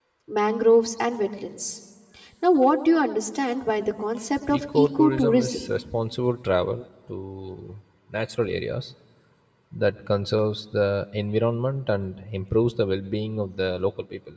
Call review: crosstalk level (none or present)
present